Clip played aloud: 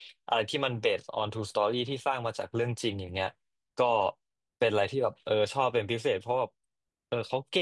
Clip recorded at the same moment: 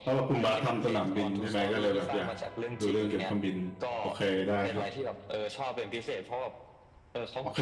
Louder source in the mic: user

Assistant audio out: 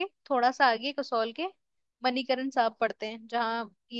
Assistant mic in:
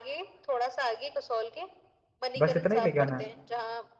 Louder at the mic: user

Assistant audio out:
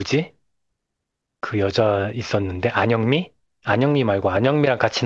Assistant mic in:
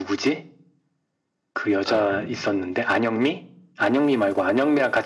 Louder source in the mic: echo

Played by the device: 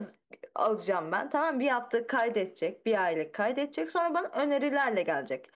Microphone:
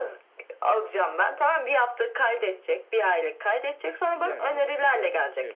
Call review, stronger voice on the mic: echo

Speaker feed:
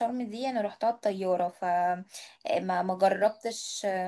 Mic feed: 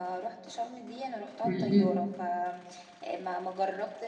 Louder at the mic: user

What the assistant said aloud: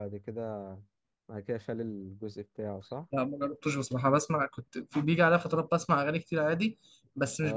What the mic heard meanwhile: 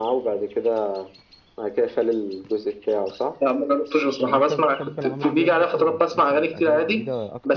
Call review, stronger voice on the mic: echo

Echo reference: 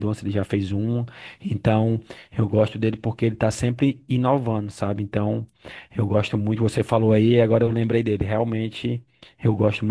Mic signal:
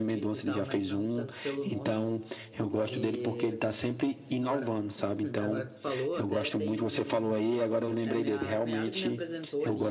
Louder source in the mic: echo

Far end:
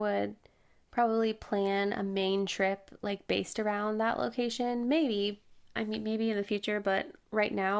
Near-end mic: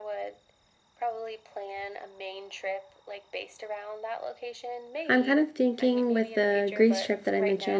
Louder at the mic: user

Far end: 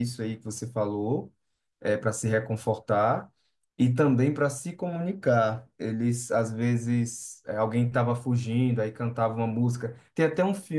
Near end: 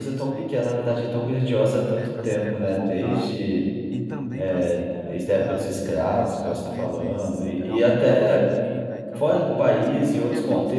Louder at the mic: user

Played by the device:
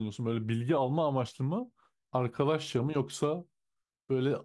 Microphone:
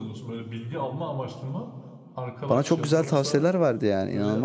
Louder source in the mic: user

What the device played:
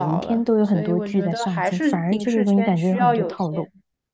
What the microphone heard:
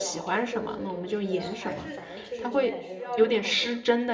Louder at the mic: user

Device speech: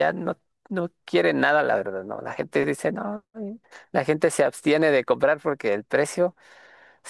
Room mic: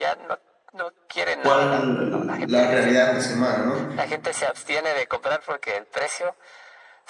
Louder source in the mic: user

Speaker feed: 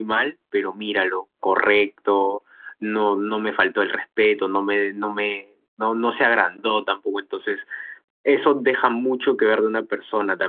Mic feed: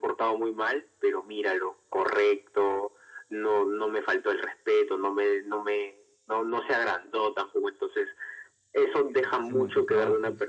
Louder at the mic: echo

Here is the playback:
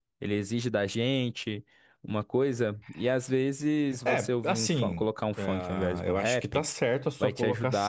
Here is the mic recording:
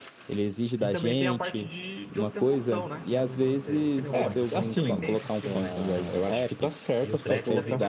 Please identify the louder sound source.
echo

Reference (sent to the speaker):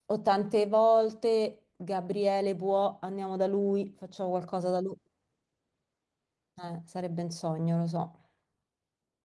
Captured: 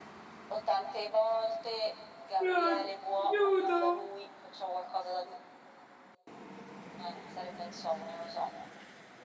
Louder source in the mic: user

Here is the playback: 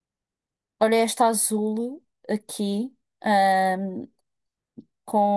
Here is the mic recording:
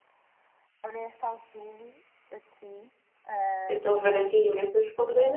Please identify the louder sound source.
user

